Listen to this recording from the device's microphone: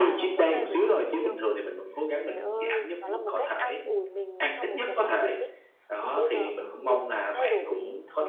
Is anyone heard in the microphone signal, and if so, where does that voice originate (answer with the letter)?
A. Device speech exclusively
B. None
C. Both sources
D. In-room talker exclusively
C